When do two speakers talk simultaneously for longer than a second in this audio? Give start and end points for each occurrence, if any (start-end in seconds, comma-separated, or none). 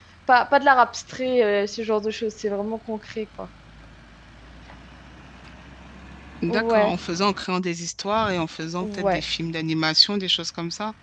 none